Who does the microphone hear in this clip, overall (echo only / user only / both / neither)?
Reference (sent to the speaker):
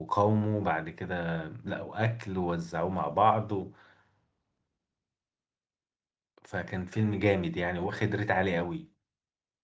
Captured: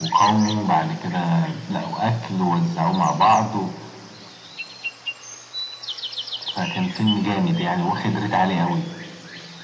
echo only